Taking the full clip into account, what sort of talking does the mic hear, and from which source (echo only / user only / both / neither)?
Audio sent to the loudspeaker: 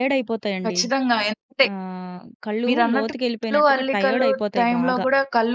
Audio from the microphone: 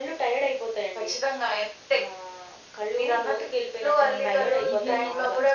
both